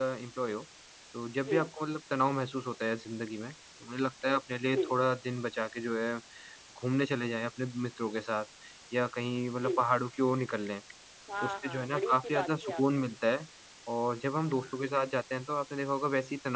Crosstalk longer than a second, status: present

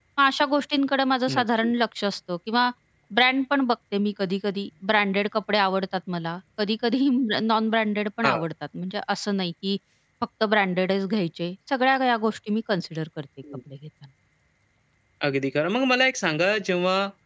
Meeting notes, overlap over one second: none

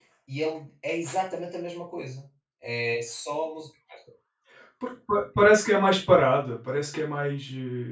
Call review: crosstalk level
none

